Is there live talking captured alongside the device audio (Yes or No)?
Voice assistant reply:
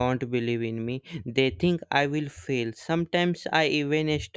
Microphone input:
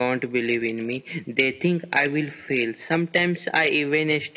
No